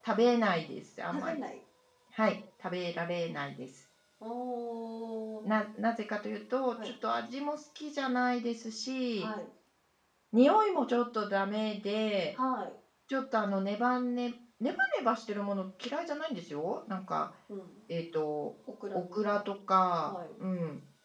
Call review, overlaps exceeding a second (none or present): none